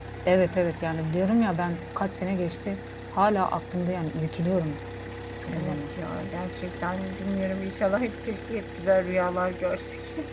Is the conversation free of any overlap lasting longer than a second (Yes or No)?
Yes